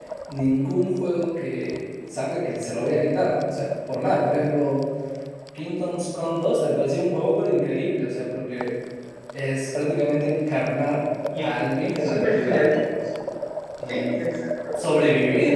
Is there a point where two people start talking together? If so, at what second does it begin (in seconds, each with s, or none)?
11.4 s